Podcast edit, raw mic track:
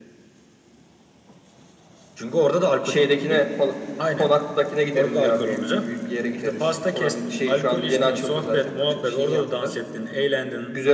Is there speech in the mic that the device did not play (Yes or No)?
No